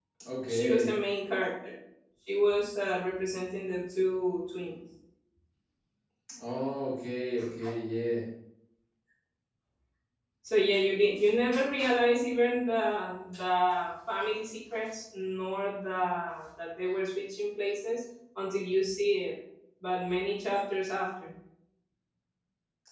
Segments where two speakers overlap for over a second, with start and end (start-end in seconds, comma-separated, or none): none